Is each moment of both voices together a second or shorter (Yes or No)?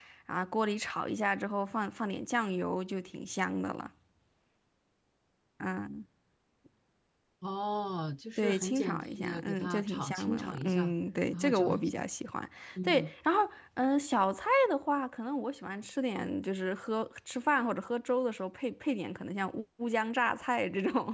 No